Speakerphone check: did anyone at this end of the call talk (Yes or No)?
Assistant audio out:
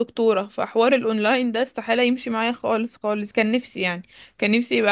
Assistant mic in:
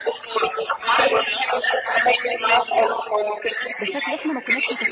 Yes